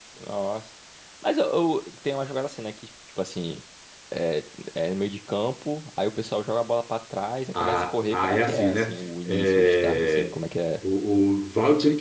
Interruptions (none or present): present